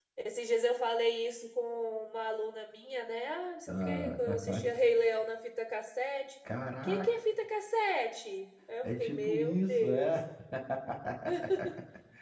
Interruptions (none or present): present